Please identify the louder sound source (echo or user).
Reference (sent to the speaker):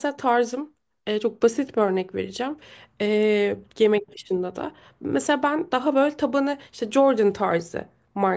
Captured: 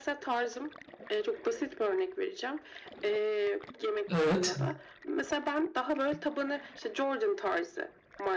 user